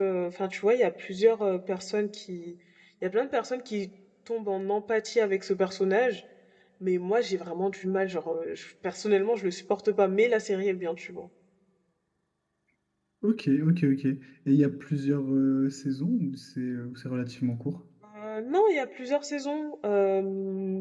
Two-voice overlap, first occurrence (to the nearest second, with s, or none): none